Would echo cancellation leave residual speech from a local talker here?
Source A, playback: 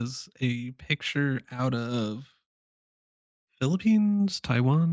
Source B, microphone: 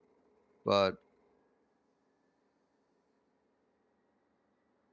Yes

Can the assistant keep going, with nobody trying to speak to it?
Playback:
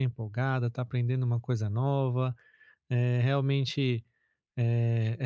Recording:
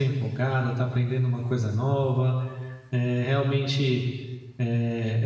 Yes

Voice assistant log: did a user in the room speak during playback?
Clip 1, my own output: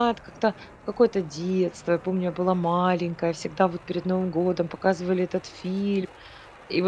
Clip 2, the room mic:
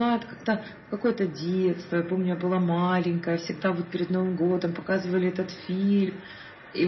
No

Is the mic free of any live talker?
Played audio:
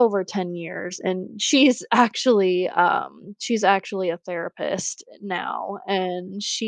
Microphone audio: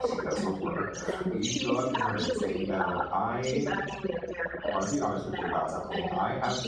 No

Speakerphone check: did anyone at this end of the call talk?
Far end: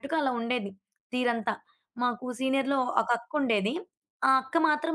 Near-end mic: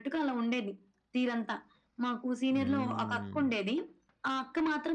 Yes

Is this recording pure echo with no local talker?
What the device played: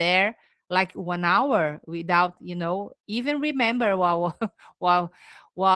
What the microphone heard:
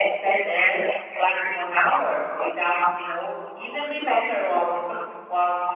Yes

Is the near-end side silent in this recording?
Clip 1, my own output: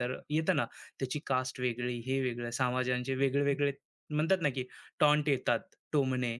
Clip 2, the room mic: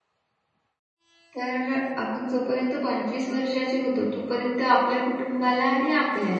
No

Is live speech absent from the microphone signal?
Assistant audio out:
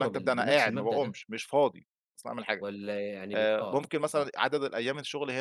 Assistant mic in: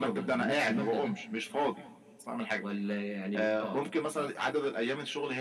Yes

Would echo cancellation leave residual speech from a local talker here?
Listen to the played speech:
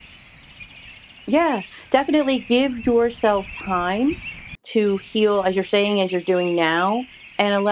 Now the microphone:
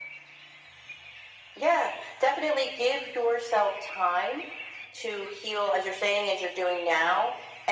No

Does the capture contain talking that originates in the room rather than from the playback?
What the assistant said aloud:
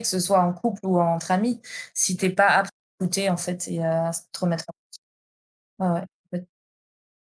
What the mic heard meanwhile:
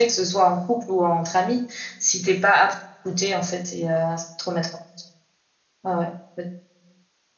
No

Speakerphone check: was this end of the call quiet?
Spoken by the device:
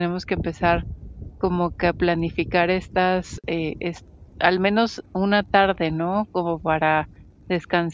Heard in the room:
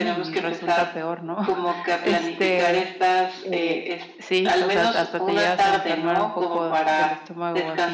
No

